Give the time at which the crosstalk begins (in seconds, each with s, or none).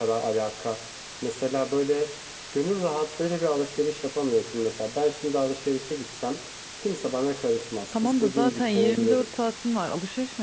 7.9 s